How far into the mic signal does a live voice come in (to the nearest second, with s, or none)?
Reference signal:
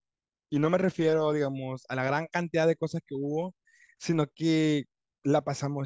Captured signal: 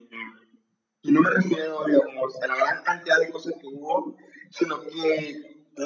none